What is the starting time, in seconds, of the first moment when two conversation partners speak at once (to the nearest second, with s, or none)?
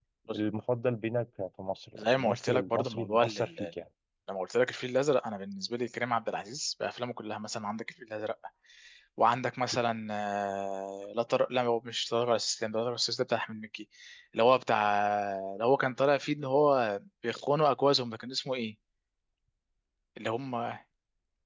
2 s